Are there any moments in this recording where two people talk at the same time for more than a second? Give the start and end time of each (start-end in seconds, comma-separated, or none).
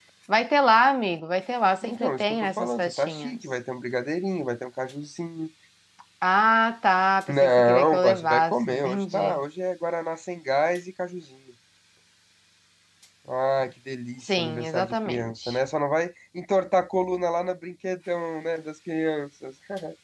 1.8-3.4, 7.3-9.4, 14.2-15.6